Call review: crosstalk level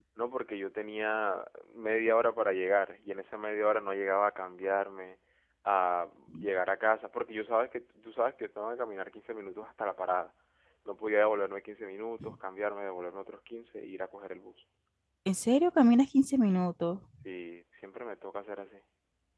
none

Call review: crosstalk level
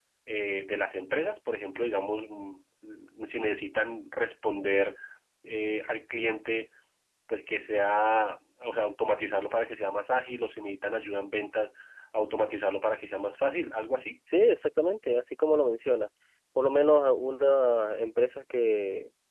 none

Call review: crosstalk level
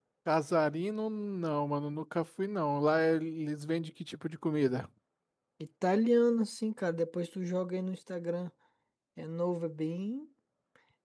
none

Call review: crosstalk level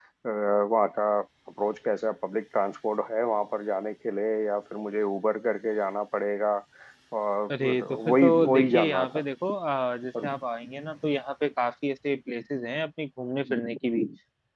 present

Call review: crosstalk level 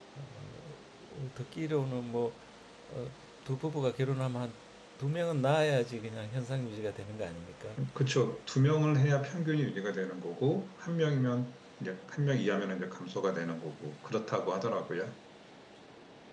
none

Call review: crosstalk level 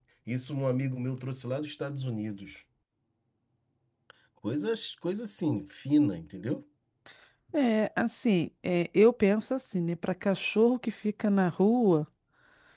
none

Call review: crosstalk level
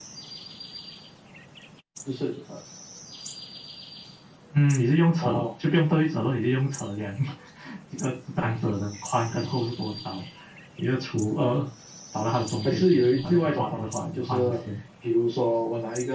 present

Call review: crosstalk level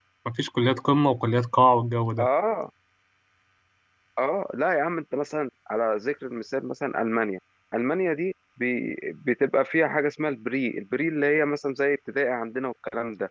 none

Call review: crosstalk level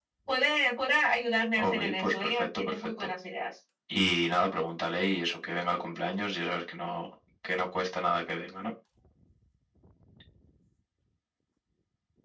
present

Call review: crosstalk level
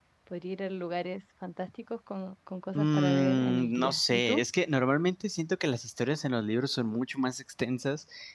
present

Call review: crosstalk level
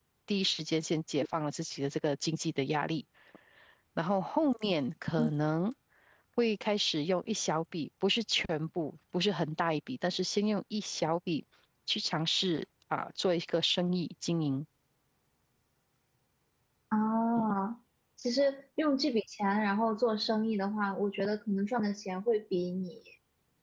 none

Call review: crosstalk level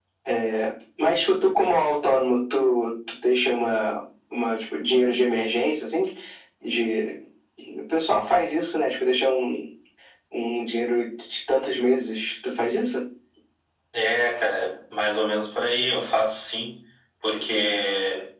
none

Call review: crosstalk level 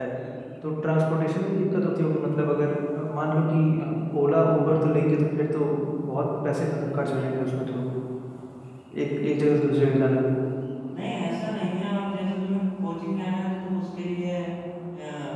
none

